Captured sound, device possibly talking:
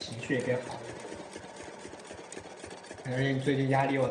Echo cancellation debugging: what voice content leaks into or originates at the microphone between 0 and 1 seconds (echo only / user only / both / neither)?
user only